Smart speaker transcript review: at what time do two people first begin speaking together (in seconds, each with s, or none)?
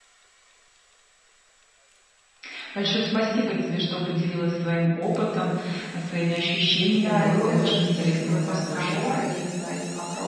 7.0 s